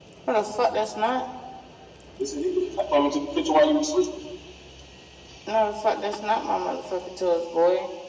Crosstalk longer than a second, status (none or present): none